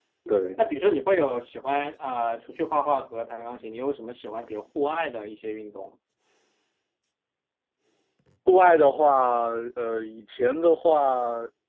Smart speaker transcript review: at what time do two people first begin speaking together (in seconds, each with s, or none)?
none